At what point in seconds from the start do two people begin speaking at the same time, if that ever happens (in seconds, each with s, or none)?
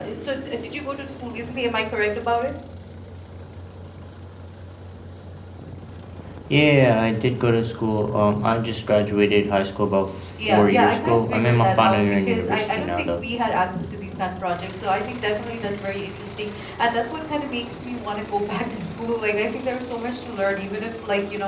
10.4 s